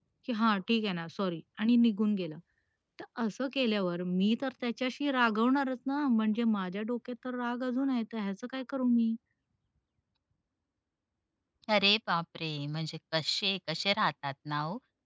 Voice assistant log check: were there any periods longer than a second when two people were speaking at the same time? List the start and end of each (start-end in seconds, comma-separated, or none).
none